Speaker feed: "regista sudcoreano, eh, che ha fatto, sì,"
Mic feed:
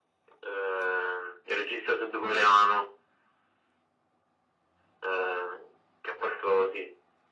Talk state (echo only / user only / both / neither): echo only